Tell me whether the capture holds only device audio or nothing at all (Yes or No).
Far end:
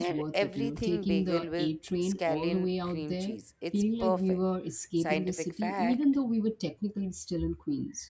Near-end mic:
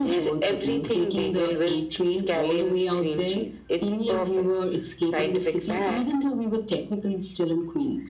Yes